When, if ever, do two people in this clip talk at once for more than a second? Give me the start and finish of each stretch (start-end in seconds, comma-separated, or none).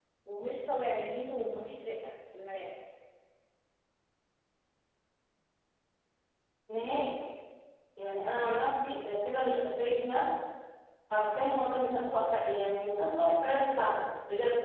none